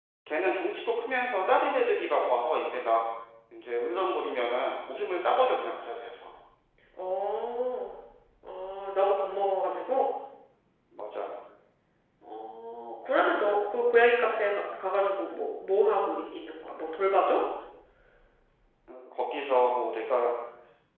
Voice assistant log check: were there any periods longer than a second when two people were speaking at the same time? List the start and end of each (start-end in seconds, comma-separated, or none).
none